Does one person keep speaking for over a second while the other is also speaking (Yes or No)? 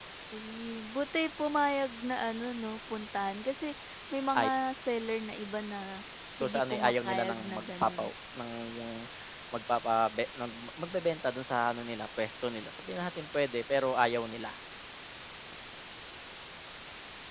Yes